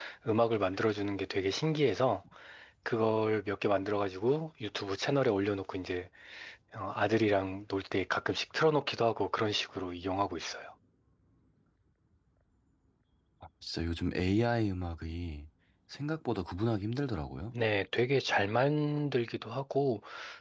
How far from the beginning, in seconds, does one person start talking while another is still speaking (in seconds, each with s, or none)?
none